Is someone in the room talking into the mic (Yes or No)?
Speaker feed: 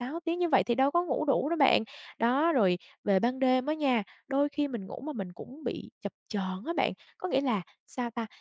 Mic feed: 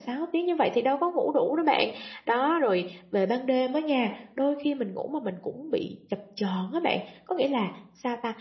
No